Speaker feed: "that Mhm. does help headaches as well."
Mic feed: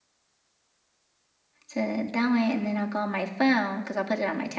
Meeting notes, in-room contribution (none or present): present